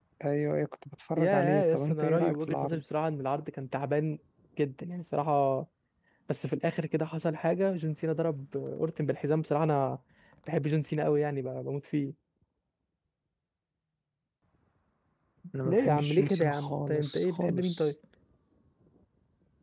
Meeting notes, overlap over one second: present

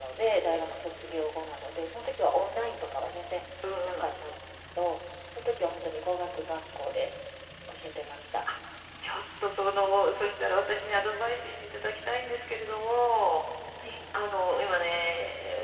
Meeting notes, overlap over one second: none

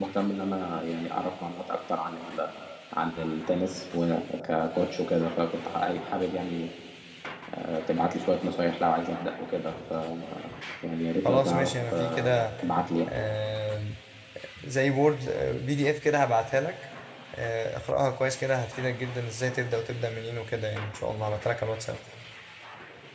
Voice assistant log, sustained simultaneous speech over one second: present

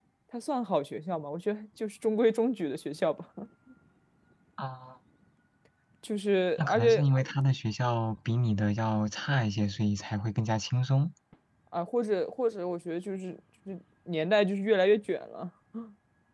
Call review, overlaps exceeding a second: none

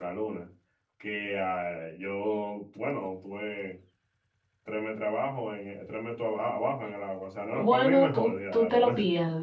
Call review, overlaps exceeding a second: present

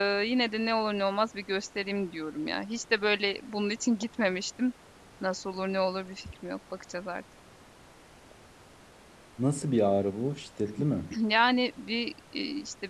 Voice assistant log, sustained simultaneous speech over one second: none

